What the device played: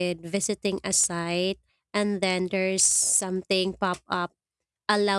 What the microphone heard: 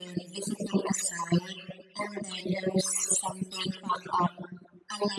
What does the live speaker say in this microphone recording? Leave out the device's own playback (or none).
none